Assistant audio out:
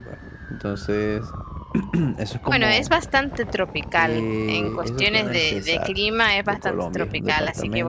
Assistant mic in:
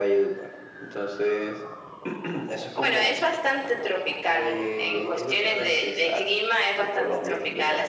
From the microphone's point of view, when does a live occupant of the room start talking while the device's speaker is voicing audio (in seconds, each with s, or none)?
none